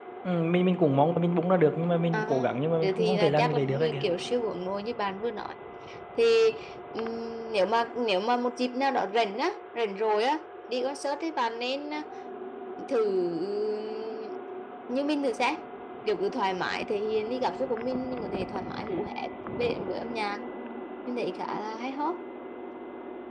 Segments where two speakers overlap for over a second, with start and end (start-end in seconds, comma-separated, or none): 2.1-4.0